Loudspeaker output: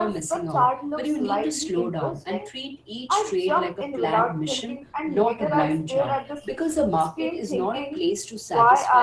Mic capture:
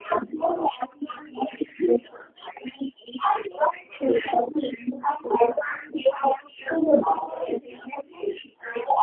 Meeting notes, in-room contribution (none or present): none